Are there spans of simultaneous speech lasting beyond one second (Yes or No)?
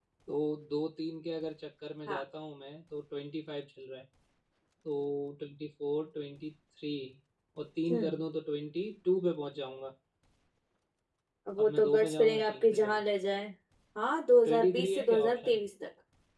Yes